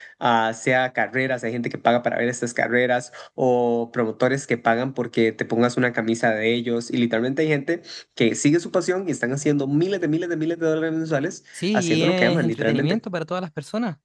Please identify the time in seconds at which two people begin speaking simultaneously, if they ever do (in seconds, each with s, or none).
11.5 s